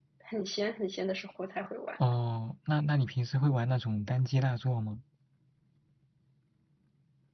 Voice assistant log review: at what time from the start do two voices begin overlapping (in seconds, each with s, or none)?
none